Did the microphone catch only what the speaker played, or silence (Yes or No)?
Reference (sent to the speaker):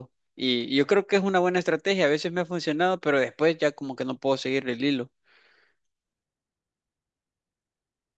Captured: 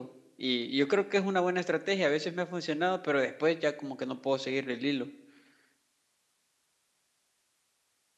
Yes